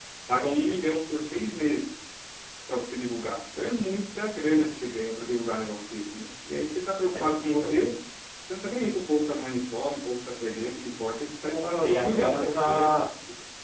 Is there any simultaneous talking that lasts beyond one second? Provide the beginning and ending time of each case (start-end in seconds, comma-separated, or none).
11.4-12.9